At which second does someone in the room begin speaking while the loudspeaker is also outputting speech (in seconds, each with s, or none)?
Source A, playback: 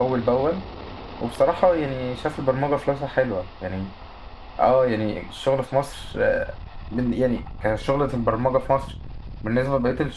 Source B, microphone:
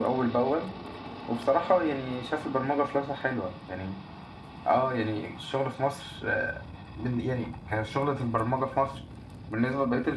none